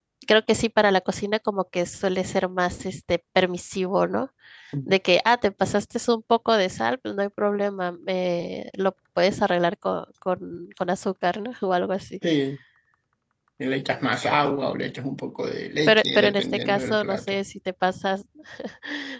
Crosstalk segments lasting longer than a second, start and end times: 15.9-17.3

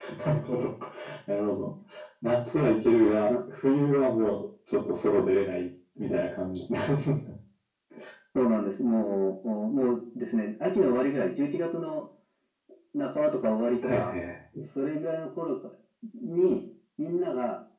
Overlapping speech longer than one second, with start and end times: none

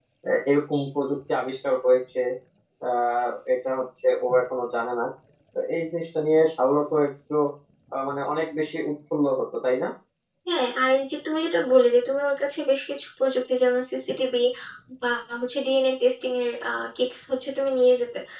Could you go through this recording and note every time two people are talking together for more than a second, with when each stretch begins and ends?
none

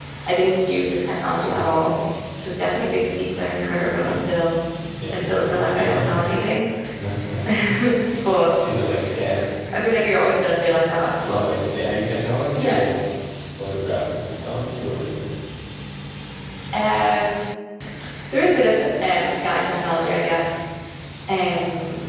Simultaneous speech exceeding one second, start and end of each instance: 5.1-6.5

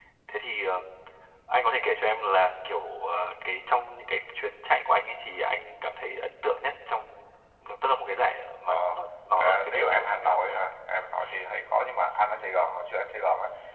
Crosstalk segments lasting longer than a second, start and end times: 9.4-10.6

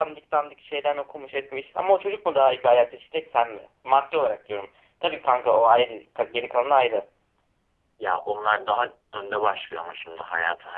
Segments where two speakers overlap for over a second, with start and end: none

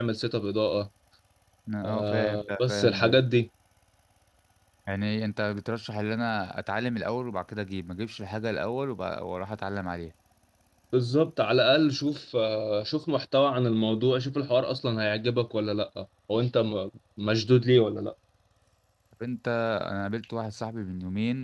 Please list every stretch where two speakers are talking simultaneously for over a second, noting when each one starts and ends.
1.9-3.2

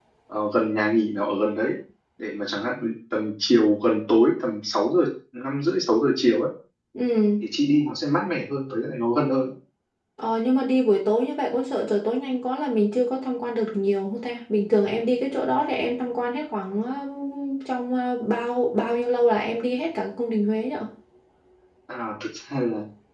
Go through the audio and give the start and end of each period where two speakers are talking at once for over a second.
none

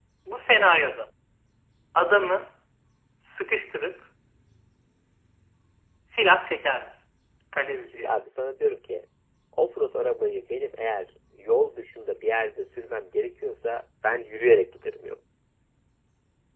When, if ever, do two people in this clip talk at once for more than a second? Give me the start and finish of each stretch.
none

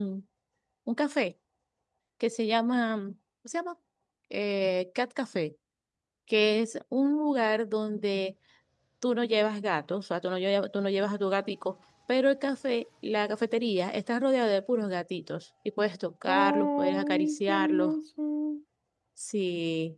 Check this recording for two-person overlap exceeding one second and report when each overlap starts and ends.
16.3-17.9

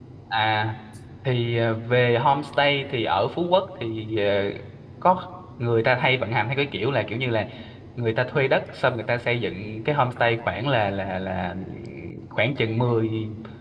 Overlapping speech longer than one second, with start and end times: none

